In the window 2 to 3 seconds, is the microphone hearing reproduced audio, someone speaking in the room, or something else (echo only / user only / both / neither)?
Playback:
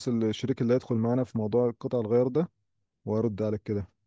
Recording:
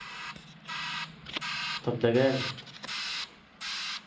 user only